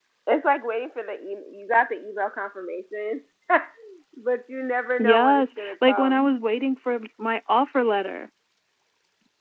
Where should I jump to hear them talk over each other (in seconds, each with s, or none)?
5.0 s